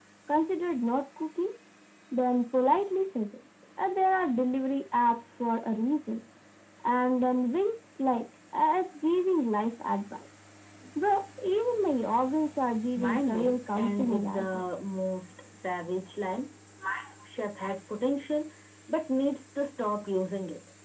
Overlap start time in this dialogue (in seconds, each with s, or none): 13.0 s